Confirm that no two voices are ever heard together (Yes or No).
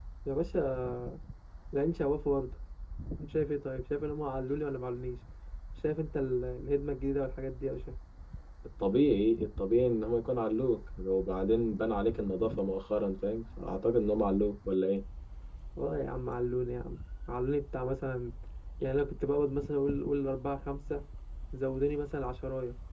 Yes